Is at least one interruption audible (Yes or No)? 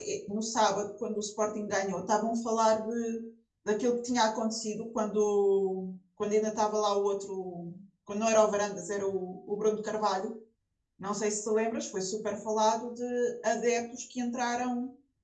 No